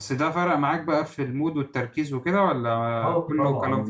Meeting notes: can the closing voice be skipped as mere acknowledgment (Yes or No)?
No